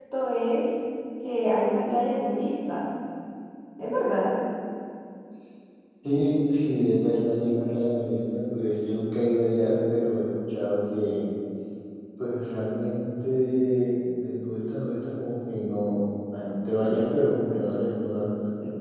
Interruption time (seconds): none

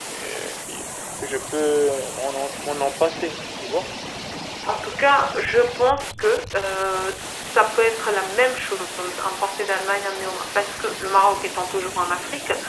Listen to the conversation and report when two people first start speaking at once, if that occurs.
none

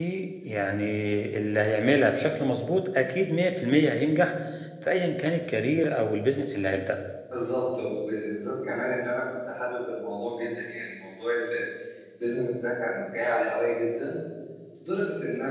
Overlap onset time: none

